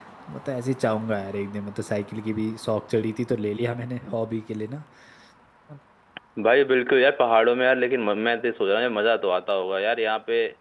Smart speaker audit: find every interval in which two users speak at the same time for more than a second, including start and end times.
none

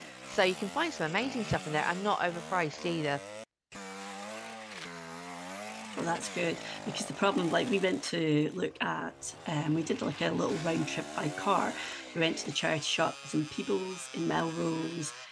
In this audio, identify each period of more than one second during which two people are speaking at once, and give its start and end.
none

